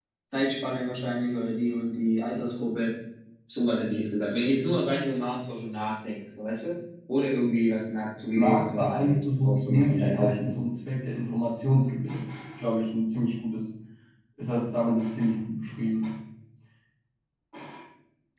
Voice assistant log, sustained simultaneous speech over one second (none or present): present